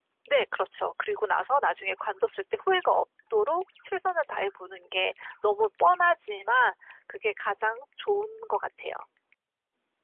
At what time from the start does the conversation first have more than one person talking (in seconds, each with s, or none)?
none